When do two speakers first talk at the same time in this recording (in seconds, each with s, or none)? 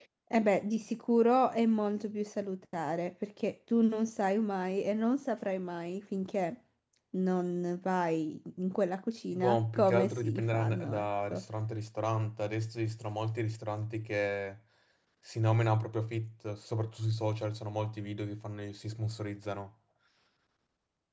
9.3 s